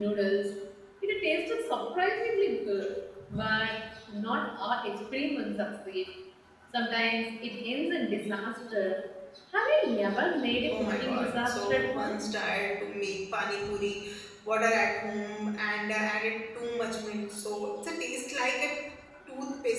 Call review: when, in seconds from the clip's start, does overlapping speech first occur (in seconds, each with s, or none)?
10.7 s